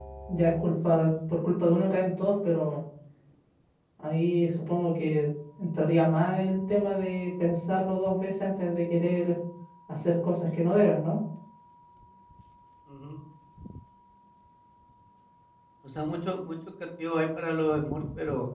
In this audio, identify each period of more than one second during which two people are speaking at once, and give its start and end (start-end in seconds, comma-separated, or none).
none